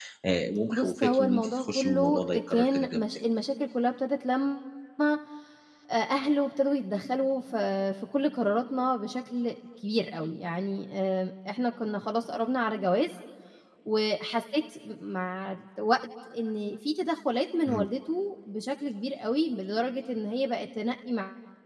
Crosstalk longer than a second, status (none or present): present